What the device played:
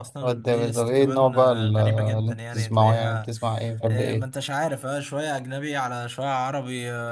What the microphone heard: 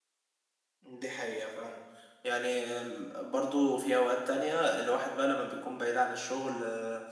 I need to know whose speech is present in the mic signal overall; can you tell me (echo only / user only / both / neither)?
user only